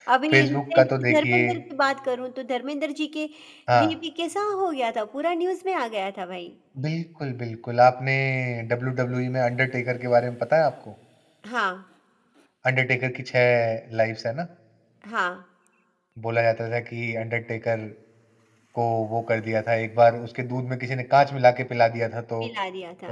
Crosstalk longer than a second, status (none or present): present